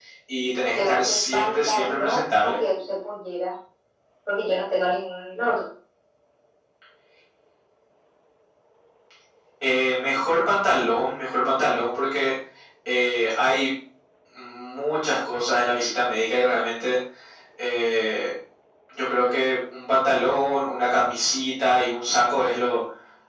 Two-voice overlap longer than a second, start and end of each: 0.8-2.5

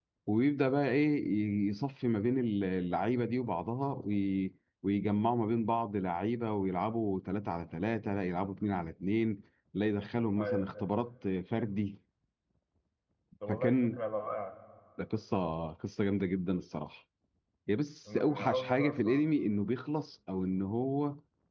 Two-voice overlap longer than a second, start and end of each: 18.1-19.3

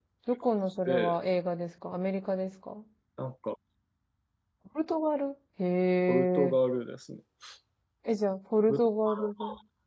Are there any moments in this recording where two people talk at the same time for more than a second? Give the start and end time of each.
none

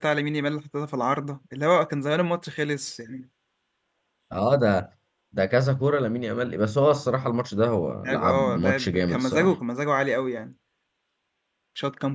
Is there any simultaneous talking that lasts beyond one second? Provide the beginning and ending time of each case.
8.0-9.5

